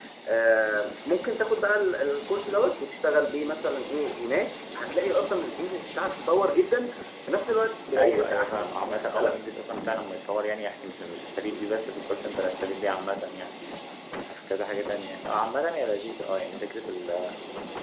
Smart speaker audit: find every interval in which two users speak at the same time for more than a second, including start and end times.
8.0-9.3

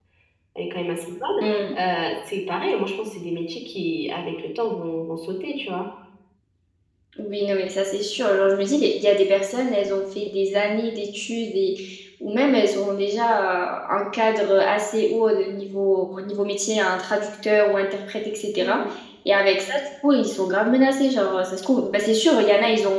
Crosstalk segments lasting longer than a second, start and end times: none

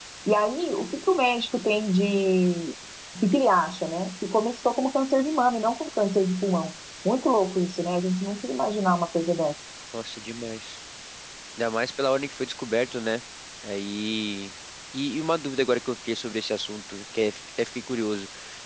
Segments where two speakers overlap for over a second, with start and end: none

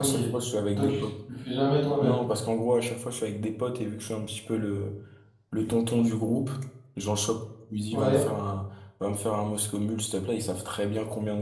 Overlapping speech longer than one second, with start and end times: none

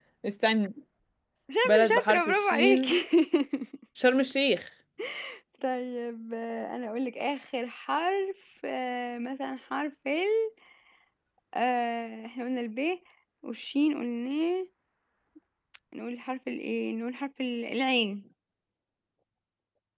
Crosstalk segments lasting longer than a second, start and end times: 1.6-3.0

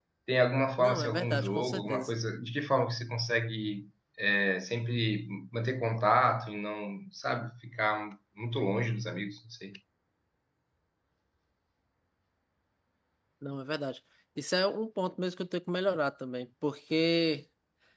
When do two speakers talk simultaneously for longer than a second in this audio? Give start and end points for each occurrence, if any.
0.8-2.1

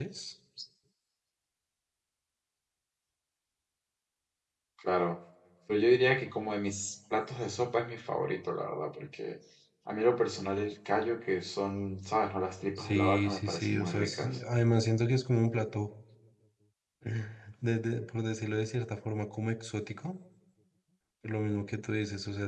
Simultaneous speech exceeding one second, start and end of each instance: 12.8-14.4

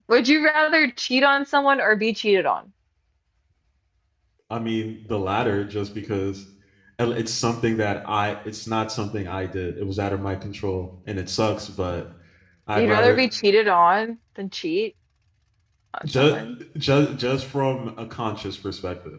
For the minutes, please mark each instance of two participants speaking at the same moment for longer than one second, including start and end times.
none

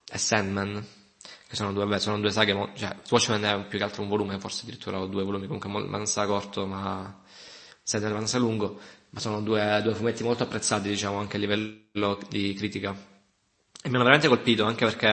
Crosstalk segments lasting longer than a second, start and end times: none

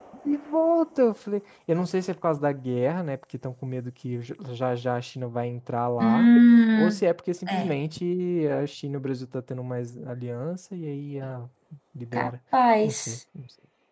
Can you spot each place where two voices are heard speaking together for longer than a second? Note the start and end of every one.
none

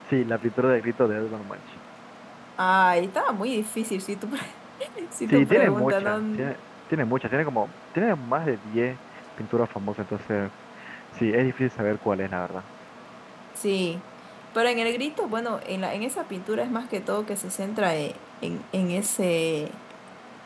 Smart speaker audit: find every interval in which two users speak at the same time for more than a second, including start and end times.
5.3-6.5

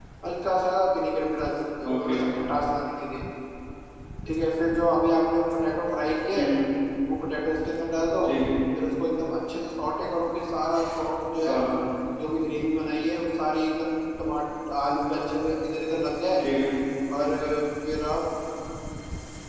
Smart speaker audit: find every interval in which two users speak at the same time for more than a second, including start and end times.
none

